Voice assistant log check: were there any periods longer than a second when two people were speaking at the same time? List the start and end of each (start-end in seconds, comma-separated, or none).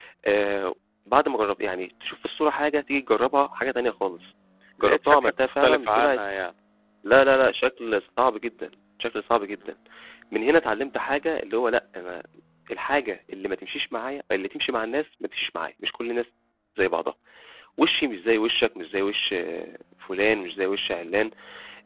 4.8-6.2